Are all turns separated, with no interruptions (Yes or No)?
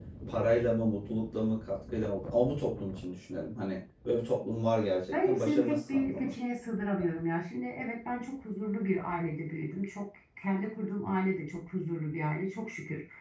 No